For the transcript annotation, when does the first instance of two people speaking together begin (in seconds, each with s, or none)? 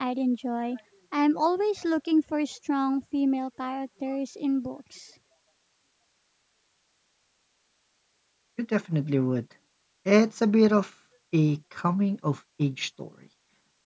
none